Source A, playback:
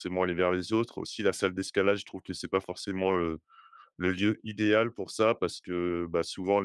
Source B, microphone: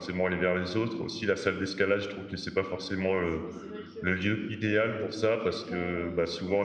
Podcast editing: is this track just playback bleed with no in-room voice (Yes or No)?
No